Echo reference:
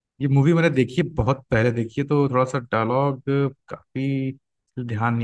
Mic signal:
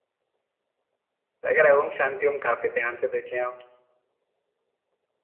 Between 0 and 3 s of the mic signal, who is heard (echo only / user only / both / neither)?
user only